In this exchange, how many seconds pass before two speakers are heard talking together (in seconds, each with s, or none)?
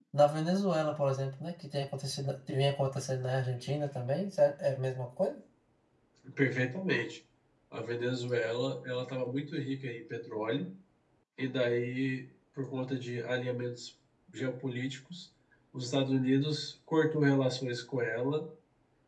none